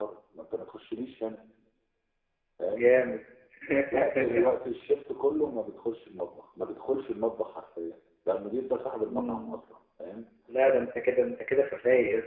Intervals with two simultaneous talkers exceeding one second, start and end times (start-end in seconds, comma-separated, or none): none